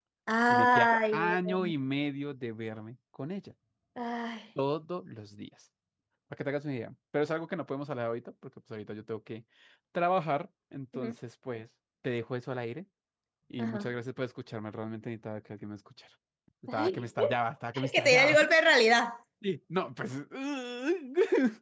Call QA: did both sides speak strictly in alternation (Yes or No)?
No